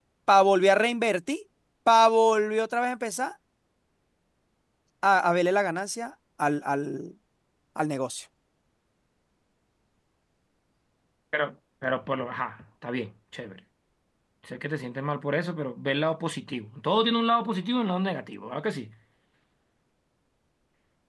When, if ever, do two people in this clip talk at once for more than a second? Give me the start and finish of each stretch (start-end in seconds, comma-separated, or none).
none